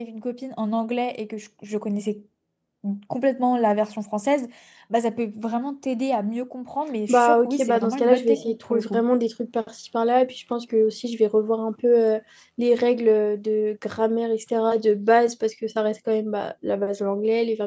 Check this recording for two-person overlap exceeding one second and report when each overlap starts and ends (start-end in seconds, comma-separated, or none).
7.1-9.0